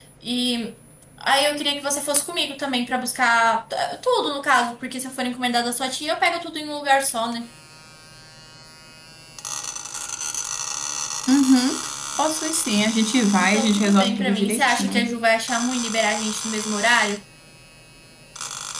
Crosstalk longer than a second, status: present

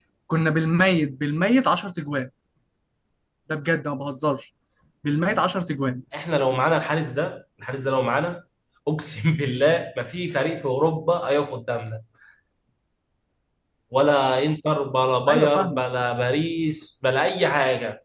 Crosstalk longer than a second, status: none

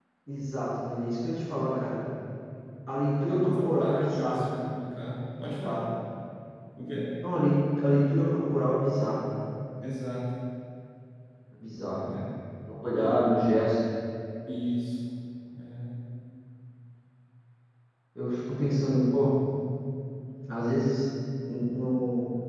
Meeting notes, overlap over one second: present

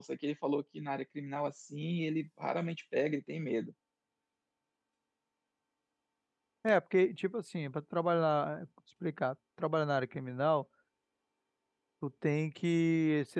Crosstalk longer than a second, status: none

